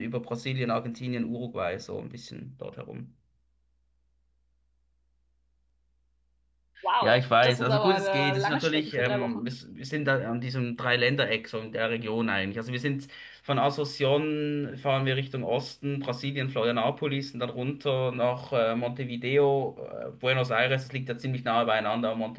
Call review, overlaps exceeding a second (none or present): present